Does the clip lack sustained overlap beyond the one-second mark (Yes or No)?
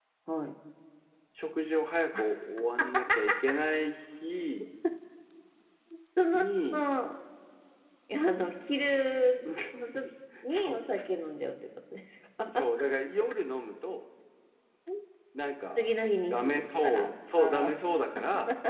No